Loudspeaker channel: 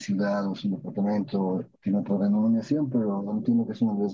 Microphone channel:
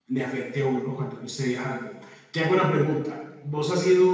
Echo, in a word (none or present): none